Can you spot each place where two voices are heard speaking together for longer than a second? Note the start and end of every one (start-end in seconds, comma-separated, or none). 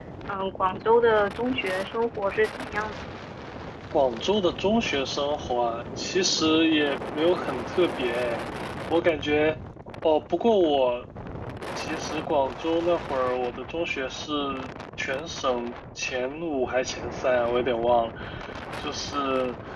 none